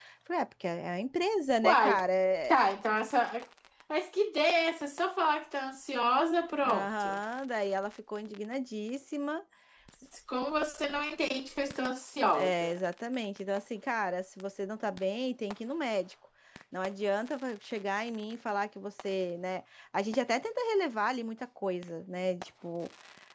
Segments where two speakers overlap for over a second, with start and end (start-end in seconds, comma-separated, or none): none